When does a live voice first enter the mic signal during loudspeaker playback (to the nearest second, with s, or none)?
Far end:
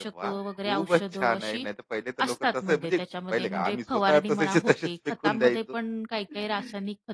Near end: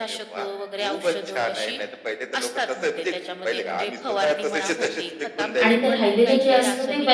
6 s